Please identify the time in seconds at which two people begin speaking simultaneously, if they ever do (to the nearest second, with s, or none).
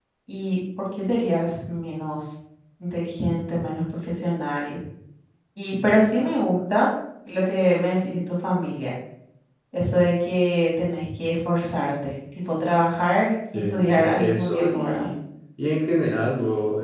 14 s